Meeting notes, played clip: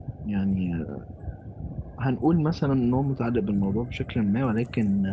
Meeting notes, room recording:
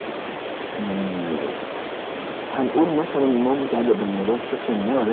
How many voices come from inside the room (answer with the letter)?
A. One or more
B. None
B